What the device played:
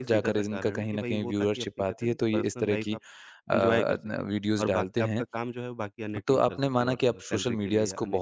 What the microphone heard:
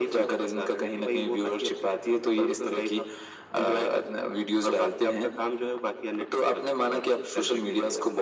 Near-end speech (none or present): none